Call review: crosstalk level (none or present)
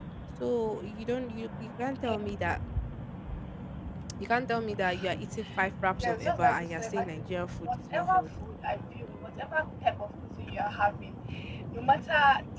present